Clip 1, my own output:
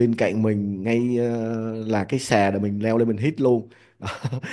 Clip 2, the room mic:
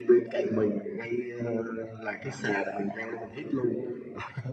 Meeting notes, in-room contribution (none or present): none